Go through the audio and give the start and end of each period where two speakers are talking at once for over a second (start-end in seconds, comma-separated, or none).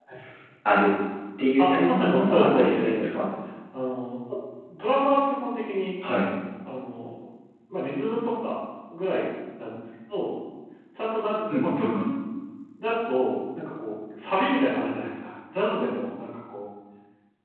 1.6-3.1